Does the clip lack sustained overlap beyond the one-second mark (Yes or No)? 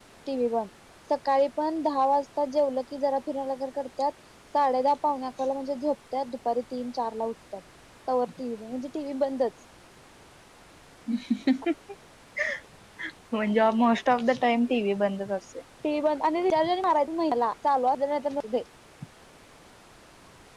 Yes